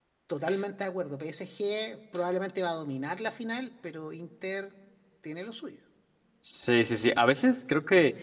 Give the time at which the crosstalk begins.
none

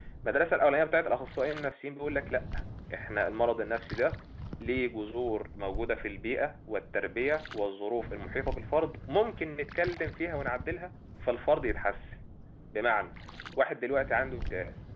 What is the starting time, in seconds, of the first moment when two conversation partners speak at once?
none

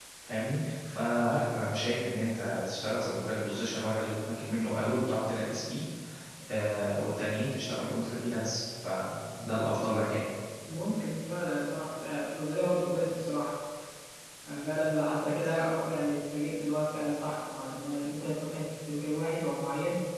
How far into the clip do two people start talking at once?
none

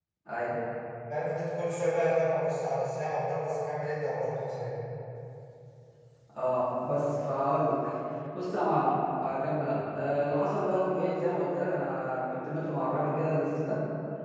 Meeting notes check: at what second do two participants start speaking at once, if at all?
none

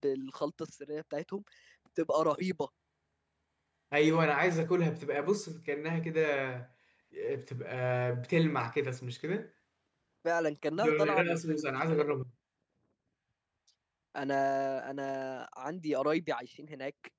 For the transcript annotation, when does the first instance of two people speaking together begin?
10.8 s

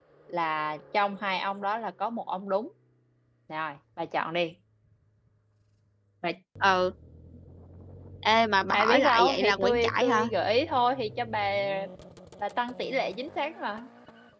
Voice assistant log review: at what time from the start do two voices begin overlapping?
8.7 s

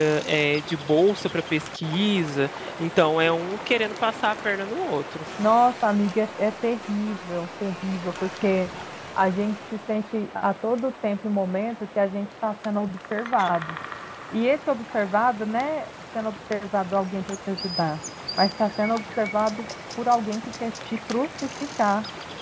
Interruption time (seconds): none

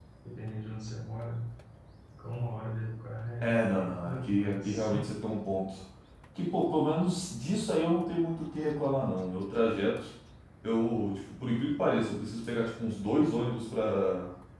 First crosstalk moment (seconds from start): 3.4 s

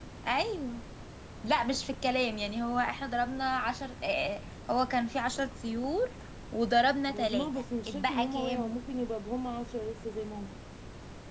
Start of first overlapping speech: 7.1 s

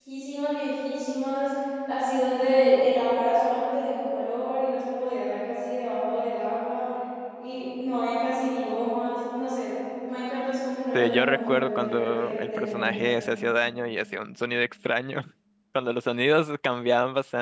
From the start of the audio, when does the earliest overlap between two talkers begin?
10.9 s

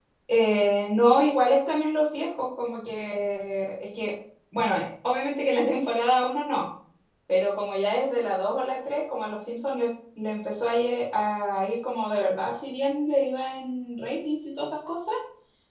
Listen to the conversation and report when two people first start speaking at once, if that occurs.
none

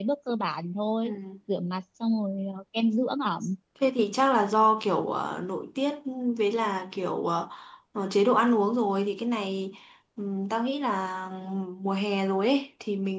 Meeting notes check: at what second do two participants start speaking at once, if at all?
none

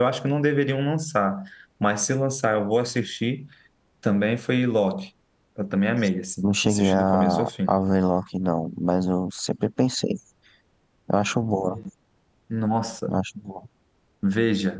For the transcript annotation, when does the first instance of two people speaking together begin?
6.4 s

